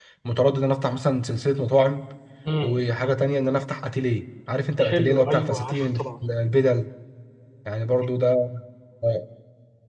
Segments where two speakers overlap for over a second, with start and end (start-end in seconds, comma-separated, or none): 4.8-6.0